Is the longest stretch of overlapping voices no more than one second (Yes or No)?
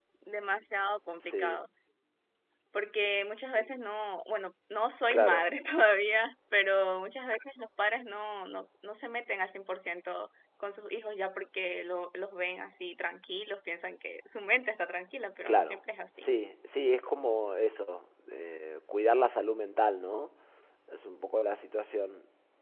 Yes